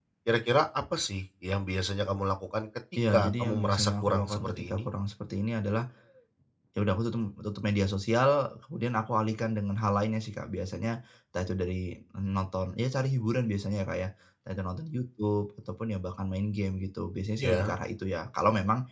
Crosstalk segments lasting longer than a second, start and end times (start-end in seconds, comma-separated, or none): 3.1-4.8